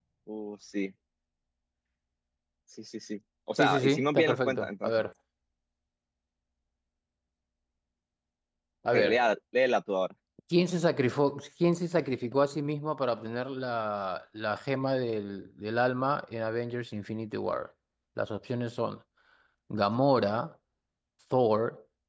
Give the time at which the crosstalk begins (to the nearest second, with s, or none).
4 s